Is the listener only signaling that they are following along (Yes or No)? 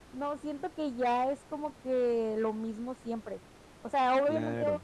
Yes